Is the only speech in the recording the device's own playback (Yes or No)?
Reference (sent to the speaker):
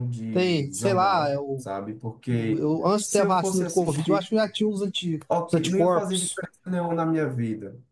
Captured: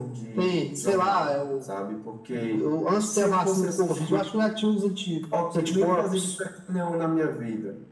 Yes